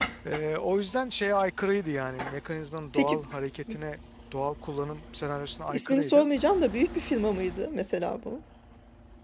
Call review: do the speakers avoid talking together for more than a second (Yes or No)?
Yes